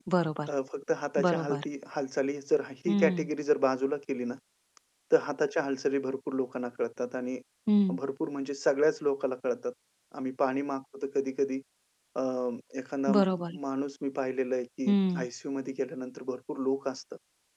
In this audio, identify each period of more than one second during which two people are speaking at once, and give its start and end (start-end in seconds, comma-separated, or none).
none